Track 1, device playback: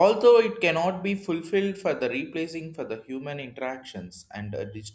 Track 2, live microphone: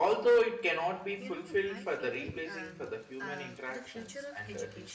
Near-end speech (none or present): present